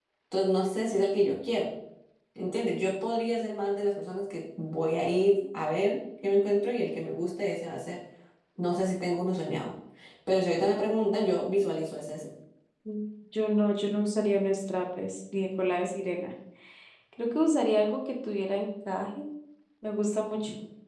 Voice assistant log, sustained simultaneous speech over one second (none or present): none